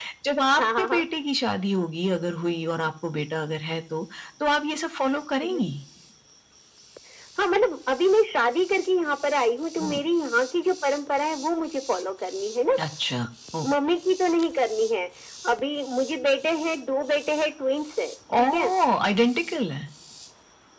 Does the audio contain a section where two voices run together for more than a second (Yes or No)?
No